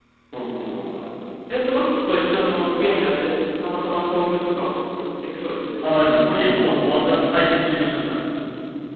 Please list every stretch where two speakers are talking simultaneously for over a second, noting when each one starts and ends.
none

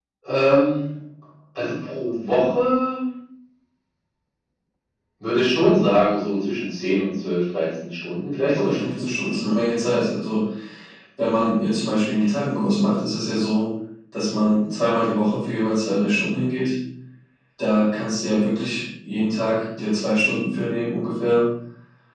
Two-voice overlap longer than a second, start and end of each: 8.6-10.0

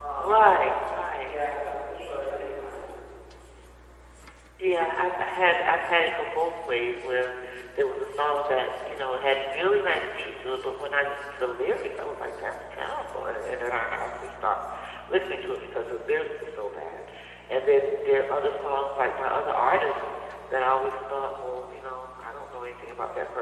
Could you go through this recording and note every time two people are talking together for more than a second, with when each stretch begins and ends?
none

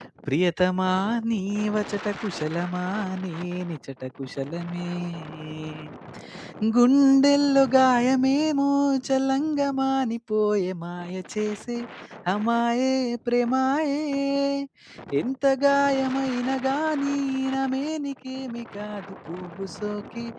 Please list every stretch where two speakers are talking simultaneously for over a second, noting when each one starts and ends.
none

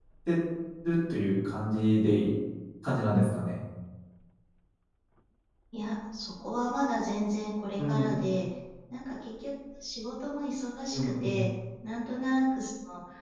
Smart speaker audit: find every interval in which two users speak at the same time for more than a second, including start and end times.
none

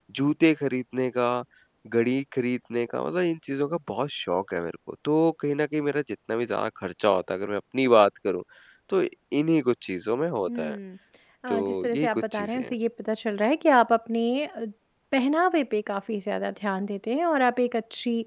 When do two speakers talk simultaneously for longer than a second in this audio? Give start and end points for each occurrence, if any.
11.5-12.7

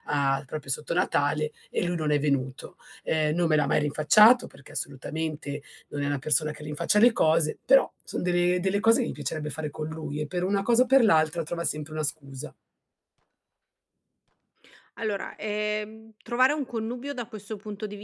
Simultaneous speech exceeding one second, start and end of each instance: none

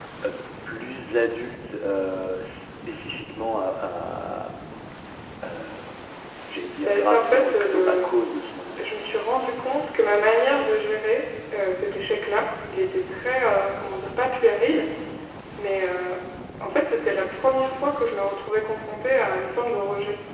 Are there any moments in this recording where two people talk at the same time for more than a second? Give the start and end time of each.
6.7-8.3

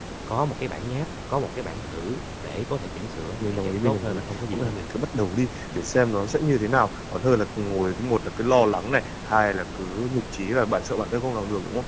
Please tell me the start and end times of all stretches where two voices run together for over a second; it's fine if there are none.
3.4-4.8

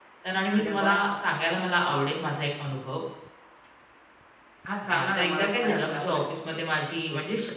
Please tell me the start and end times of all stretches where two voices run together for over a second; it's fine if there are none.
4.9-6.2

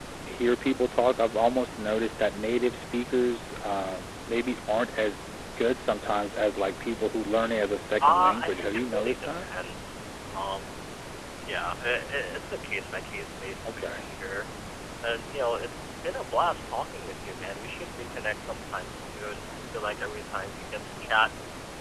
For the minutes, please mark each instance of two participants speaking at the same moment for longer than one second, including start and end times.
8.0-9.4

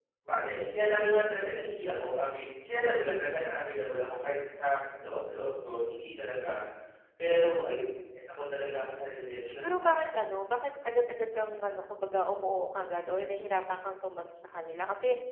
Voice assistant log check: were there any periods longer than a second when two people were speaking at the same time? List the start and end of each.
none

